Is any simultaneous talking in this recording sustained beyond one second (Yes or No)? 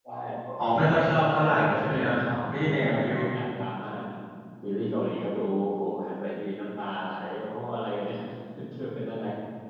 Yes